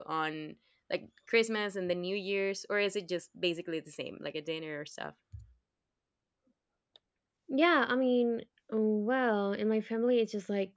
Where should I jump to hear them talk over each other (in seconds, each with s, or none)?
none